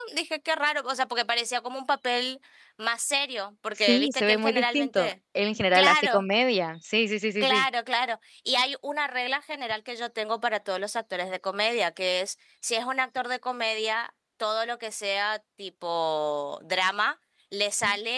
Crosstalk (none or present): present